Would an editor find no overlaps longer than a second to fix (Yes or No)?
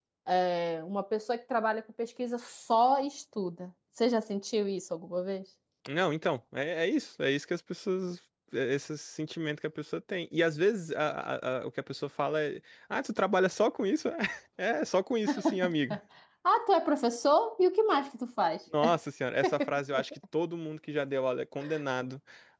Yes